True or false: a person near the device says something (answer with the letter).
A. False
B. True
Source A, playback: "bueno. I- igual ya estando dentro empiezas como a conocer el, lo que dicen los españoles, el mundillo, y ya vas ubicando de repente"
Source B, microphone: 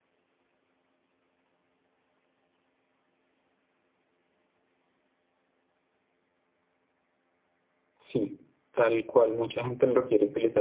B